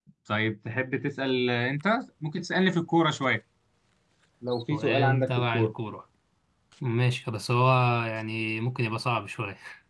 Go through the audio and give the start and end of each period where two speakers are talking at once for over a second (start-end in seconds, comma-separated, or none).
4.5-5.7